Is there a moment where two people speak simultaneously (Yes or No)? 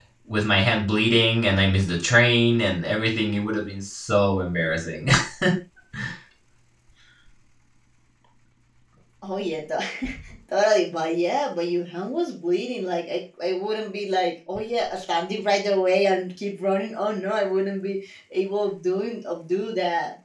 No